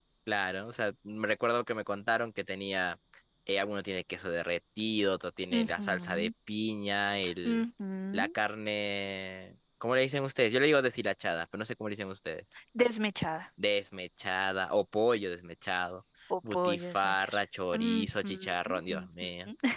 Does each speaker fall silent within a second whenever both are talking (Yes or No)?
No